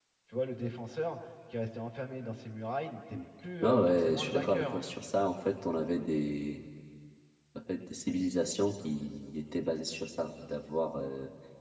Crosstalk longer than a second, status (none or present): present